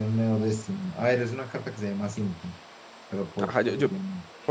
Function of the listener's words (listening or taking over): taking over